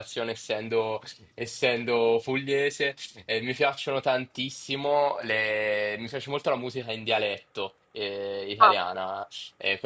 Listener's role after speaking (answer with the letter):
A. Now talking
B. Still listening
B